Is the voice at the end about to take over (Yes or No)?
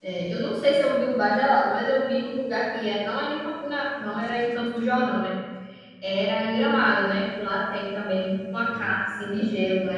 No